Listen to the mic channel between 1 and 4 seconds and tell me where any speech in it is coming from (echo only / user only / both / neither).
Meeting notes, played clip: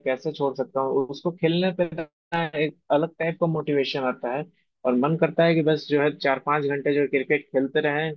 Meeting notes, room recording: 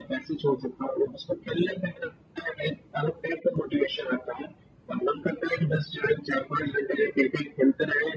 echo only